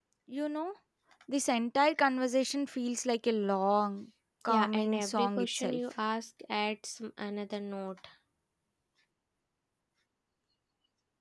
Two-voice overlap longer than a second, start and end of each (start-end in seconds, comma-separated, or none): 4.5-5.8